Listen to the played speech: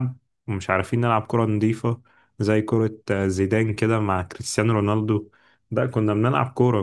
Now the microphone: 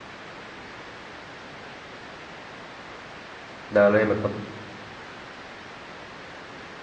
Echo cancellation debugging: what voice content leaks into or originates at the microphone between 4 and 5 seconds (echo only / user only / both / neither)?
user only